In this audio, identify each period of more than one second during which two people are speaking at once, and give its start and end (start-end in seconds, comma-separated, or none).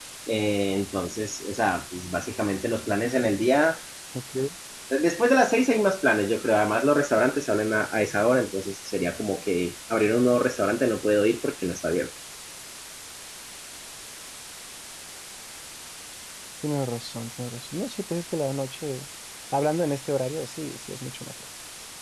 none